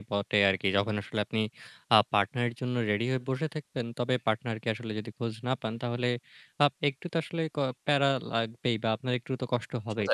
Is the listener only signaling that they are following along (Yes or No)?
Yes